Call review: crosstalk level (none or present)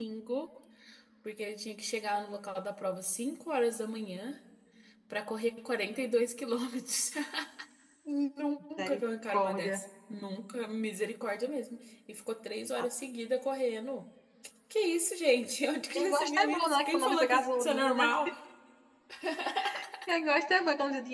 present